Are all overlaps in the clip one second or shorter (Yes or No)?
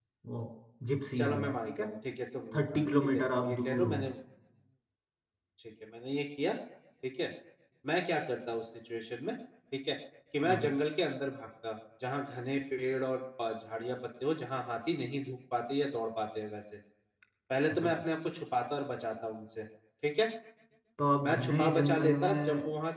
No